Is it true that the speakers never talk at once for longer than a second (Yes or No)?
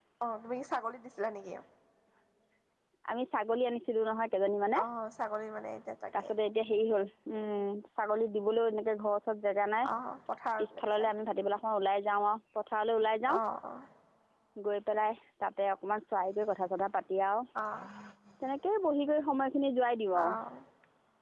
Yes